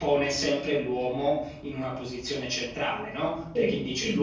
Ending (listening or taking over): listening